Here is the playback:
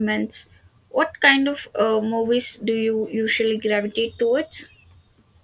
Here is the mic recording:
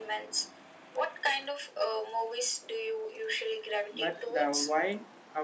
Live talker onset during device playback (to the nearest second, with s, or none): 4 s